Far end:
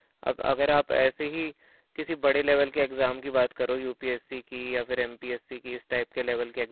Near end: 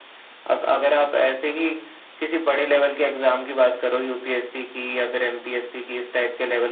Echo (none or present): present